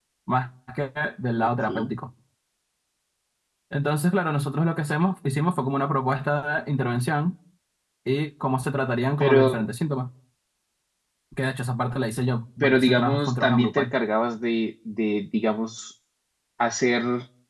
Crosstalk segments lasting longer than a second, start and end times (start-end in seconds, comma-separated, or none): 12.6-13.9